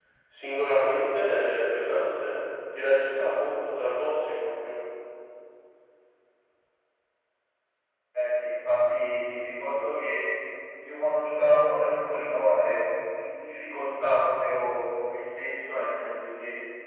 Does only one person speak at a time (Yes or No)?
Yes